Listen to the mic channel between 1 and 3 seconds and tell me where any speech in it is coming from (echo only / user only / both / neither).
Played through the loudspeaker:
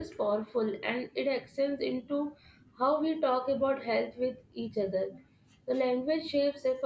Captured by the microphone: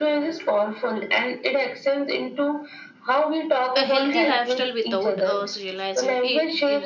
echo only